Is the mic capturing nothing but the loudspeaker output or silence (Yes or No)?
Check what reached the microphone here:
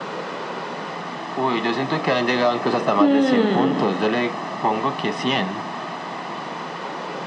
No